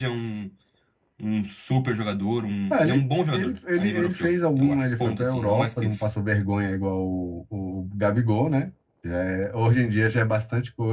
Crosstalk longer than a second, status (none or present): present